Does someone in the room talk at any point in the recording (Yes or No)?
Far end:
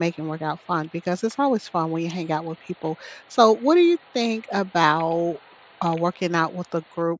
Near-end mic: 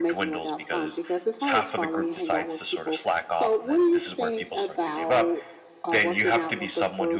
Yes